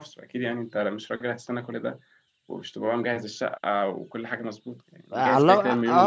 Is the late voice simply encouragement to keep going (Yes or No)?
No